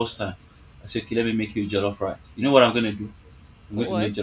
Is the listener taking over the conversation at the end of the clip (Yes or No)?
No